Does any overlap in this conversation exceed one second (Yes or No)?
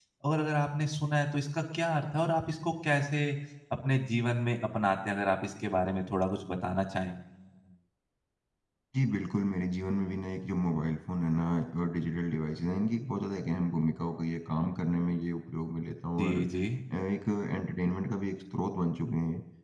No